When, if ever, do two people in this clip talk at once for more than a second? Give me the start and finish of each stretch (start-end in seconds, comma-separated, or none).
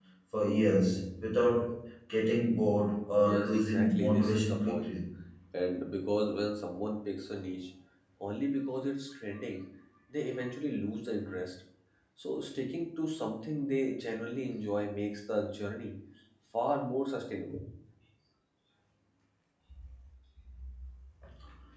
3.2-5.0